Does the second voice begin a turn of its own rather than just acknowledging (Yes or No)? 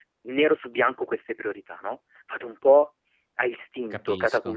No